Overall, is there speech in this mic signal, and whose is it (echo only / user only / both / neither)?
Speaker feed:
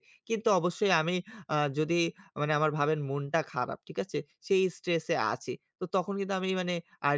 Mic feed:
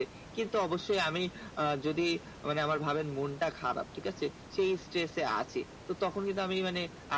echo only